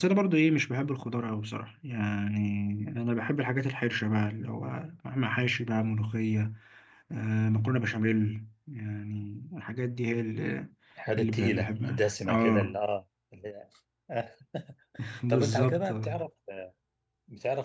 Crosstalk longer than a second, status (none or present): present